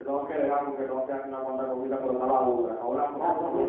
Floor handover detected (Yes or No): Yes